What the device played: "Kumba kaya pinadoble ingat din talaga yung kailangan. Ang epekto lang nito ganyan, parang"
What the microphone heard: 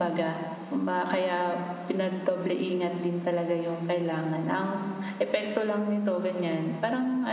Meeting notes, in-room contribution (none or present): none